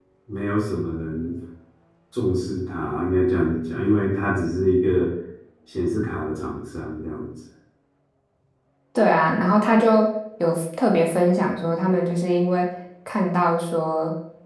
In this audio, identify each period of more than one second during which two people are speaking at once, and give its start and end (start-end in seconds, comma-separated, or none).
none